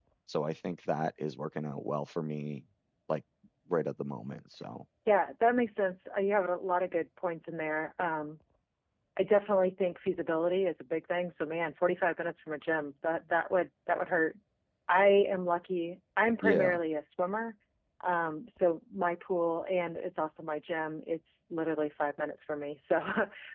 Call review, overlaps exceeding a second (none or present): none